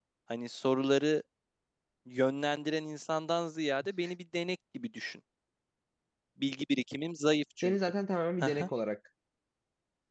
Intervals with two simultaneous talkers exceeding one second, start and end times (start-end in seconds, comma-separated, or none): none